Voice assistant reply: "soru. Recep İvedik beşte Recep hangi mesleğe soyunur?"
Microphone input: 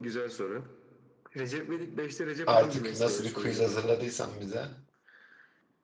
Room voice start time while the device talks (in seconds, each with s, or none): 2.5 s